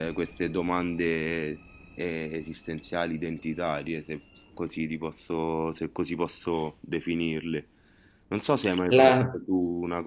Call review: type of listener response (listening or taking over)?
listening